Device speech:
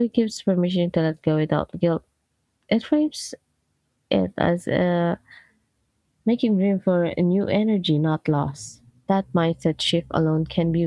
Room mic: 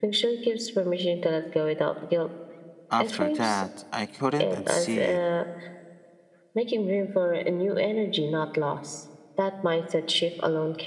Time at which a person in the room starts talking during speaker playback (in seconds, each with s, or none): 2.9 s